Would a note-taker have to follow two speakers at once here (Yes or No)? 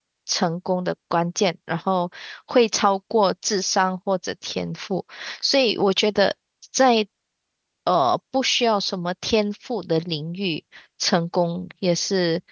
No